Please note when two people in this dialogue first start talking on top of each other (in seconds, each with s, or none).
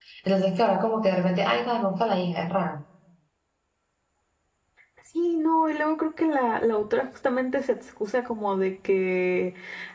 none